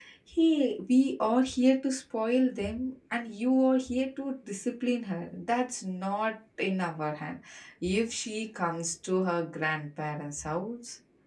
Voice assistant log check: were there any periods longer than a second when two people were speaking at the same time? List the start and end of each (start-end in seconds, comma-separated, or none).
none